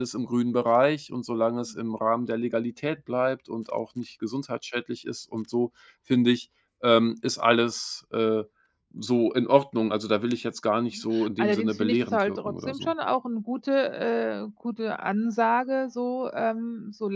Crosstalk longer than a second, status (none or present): present